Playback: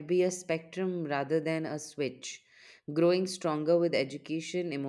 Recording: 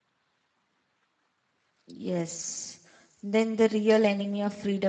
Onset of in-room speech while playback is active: 1.9 s

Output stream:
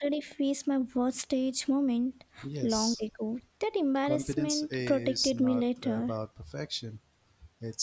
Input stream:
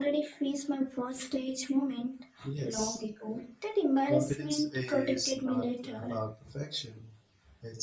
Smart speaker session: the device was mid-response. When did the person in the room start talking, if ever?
none

